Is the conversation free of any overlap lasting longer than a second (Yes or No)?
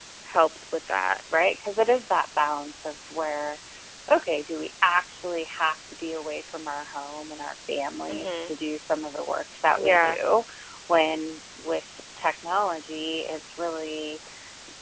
Yes